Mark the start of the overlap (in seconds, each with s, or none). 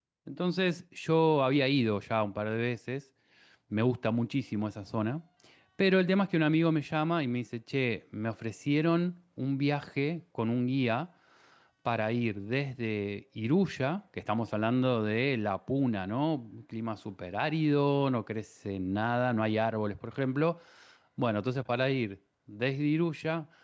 none